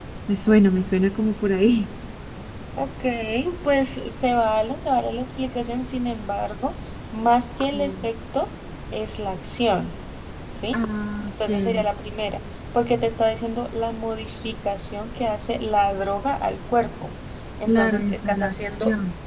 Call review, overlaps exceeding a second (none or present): present